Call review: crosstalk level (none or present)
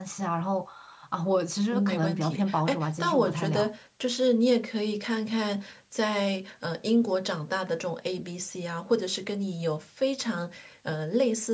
present